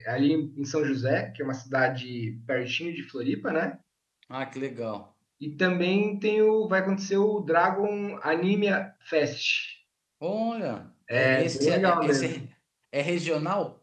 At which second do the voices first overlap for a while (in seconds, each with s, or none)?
11.1 s